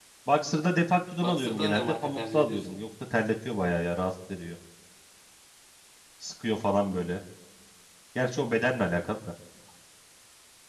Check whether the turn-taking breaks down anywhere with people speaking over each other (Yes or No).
Yes